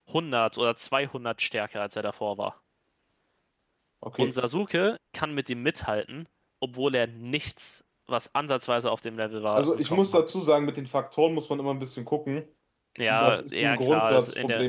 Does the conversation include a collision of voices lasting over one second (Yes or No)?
Yes